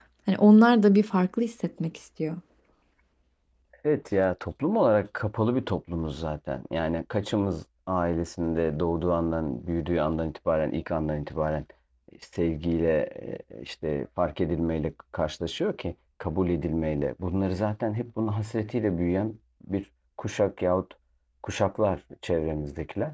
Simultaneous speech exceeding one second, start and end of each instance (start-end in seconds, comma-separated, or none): none